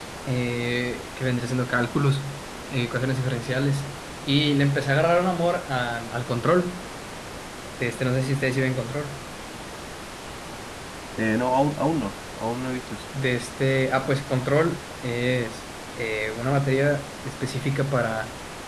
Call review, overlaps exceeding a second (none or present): none